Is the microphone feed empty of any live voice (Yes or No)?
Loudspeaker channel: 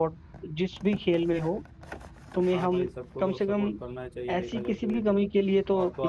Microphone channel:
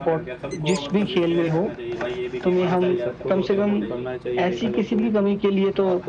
No